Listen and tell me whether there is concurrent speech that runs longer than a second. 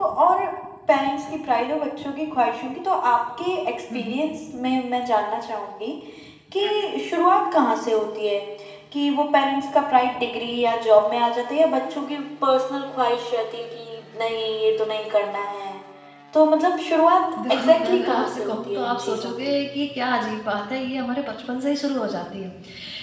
Yes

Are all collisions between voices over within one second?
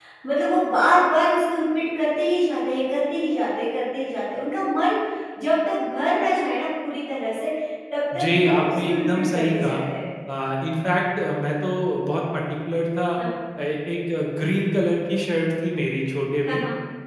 No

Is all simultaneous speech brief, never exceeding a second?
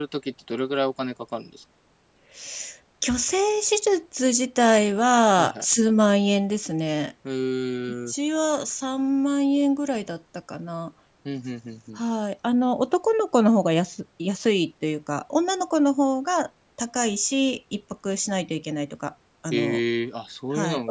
Yes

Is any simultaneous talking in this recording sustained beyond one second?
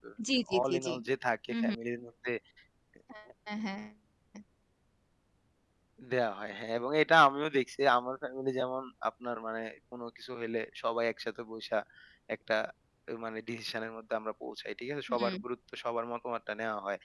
No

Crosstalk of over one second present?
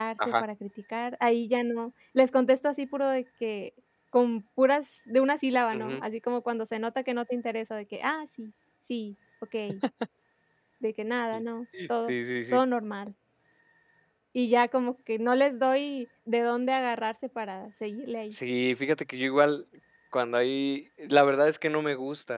No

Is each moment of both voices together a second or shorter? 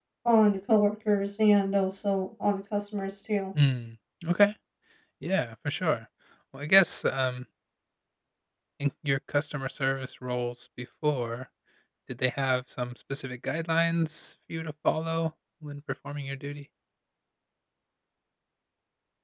Yes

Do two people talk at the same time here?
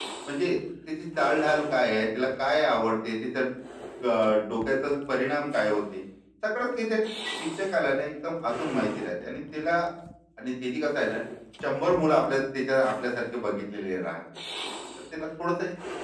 No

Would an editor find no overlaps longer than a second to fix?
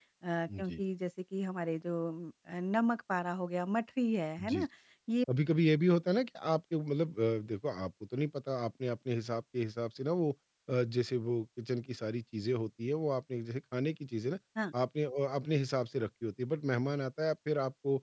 Yes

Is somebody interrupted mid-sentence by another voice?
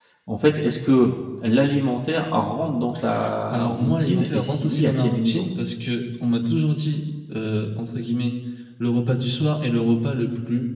Yes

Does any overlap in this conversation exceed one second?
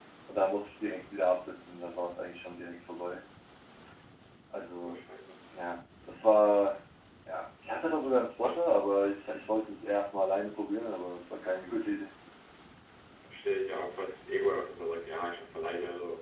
No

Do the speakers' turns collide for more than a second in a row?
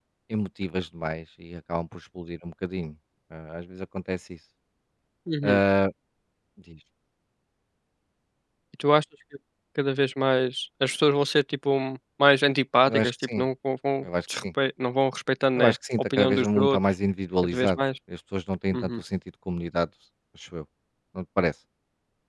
Yes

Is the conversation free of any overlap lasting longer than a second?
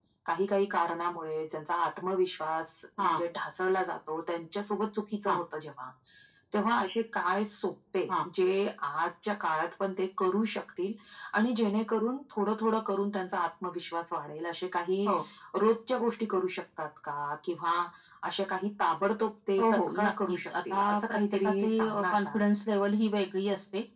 No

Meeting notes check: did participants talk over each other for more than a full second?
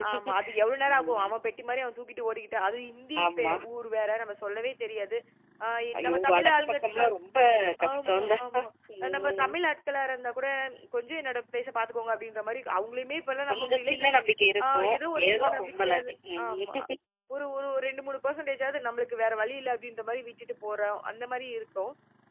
Yes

